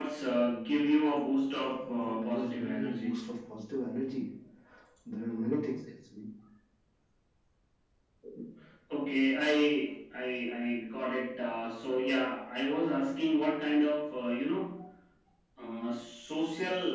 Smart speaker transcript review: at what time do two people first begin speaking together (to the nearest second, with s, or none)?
2 s